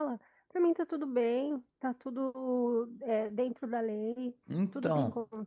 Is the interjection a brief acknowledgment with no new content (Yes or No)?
Yes